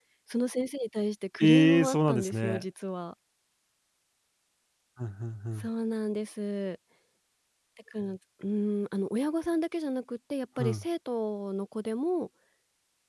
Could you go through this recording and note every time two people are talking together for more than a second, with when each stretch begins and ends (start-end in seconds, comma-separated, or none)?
1.4-2.6